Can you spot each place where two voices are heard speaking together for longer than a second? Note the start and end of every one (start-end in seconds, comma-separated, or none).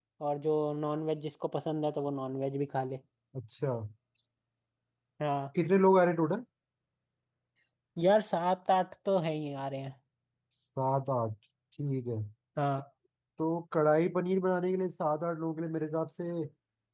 none